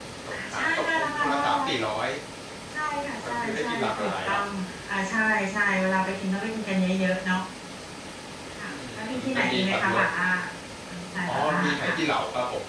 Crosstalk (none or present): present